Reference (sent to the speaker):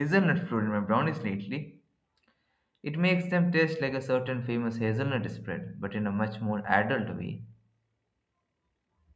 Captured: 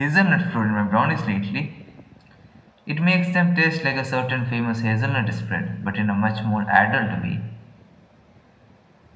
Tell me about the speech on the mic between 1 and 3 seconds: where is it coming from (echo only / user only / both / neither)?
echo only